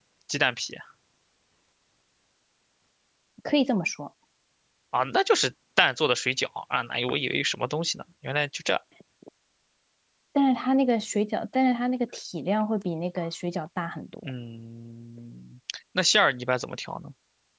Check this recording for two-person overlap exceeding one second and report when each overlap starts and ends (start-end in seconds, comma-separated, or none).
none